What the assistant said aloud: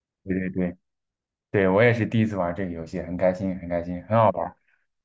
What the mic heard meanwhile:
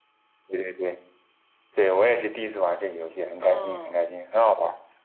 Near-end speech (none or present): present